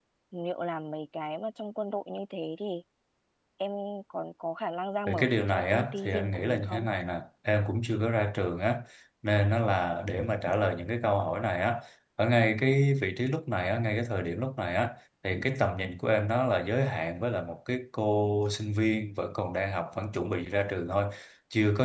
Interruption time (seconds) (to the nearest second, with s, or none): 5 s